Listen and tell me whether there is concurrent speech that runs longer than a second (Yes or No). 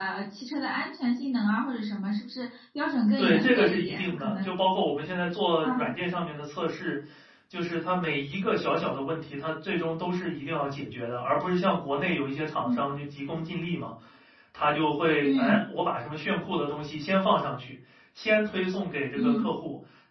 Yes